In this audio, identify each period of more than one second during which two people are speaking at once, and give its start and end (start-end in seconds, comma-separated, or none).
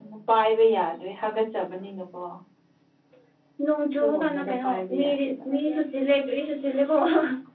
4.0-5.3